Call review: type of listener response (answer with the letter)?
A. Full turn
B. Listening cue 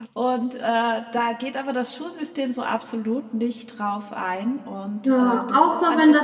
A